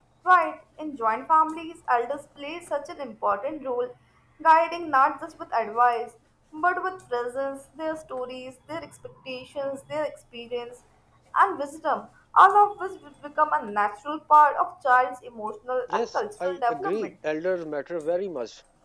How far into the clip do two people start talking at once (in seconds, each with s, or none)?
15.9 s